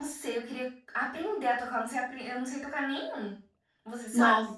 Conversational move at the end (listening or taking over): taking over